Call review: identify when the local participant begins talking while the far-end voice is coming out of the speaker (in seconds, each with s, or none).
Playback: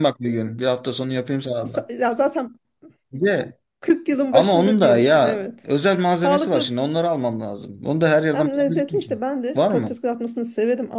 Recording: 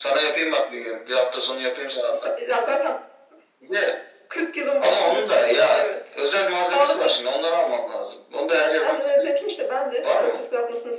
none